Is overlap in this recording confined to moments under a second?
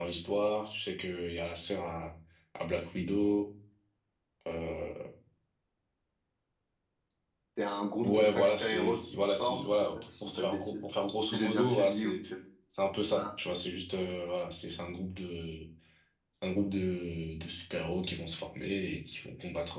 No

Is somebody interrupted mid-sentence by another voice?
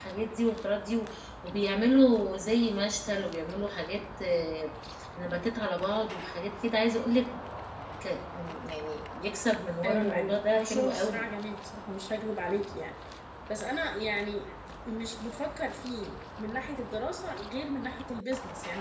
Yes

